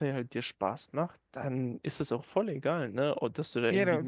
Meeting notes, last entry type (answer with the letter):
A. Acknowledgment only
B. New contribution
A